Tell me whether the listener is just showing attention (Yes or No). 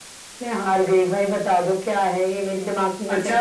No